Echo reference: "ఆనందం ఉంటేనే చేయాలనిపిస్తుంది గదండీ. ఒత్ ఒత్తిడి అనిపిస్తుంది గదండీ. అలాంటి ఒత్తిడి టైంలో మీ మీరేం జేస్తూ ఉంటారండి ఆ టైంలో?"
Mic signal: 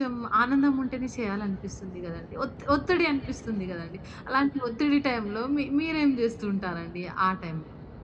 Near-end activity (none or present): none